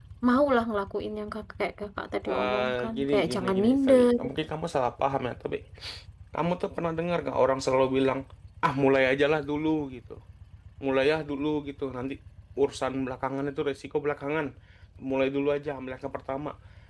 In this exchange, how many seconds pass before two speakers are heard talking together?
2.3 s

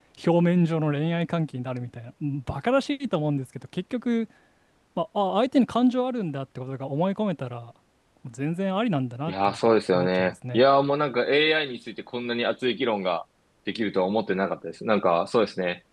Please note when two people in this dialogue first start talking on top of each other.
9.3 s

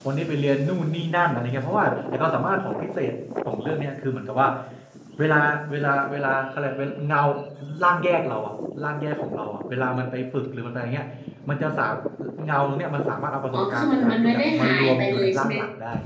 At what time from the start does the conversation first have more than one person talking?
13.5 s

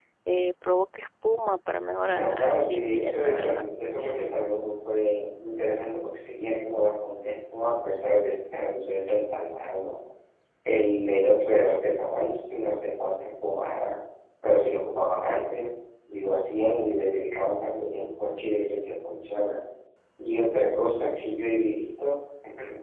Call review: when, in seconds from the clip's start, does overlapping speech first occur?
2.1 s

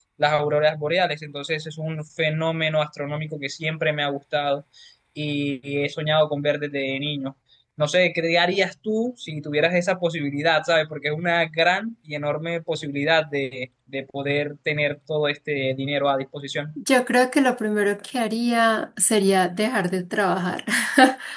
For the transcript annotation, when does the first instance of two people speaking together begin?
none

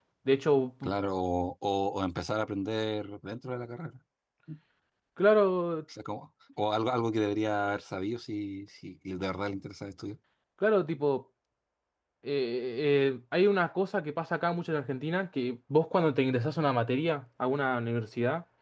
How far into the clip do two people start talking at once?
none

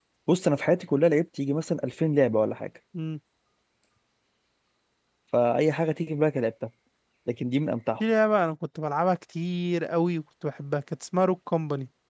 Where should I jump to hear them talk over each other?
none

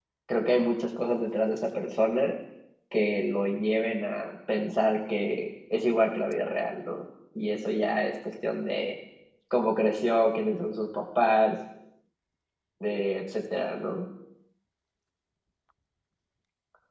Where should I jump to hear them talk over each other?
none

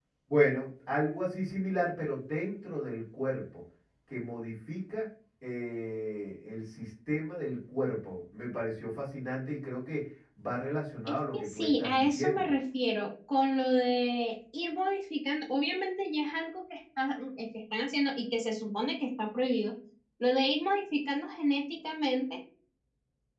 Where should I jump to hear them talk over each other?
11.1 s

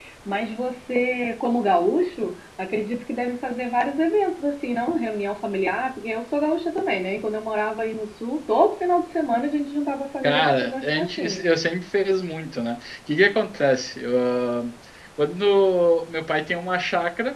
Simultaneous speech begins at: 10.2 s

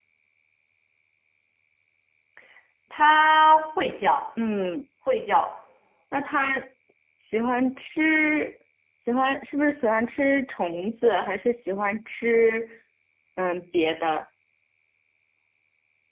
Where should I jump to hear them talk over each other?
none

